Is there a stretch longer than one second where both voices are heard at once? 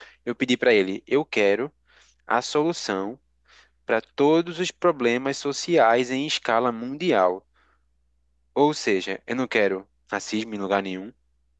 No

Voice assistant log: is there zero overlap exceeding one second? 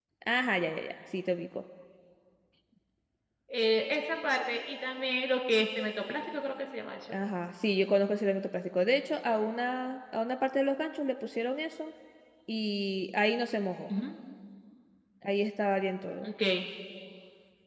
Yes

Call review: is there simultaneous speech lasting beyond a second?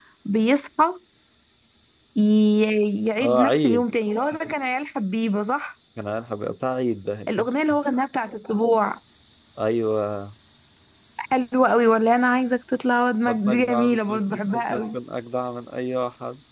Yes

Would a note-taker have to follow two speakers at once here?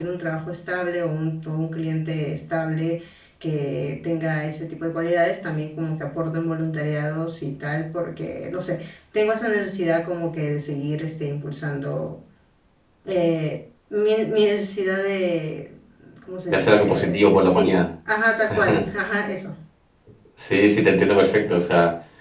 Yes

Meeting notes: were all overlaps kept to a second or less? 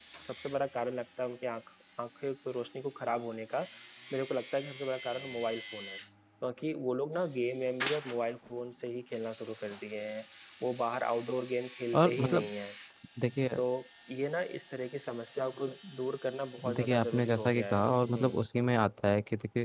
No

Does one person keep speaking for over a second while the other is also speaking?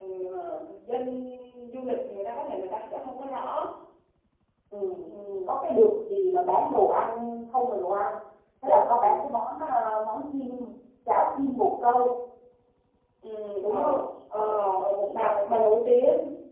No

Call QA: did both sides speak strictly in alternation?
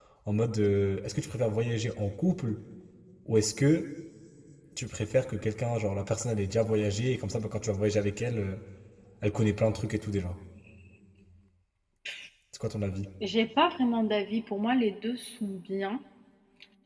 Yes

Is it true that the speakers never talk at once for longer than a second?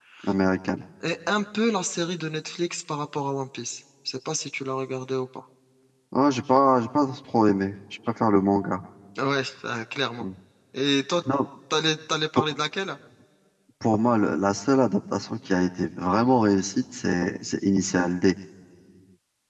Yes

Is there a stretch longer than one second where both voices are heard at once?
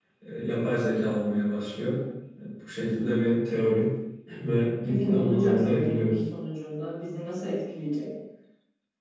Yes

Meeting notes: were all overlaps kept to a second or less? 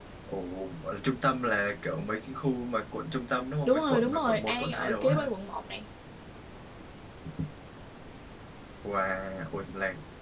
No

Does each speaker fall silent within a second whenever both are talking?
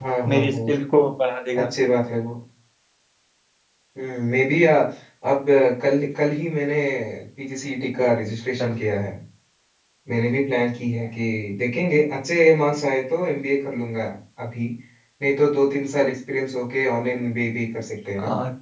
Yes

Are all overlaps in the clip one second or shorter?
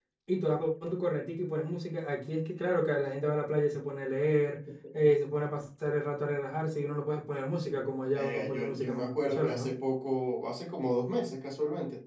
No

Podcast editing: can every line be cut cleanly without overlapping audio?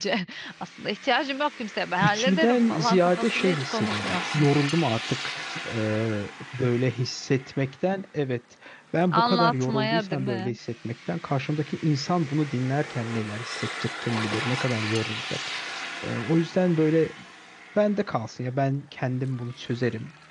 No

